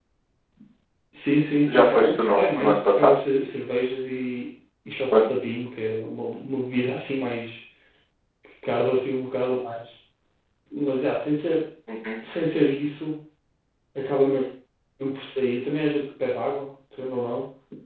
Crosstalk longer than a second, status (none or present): present